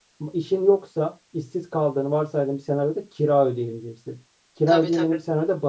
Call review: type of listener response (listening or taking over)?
listening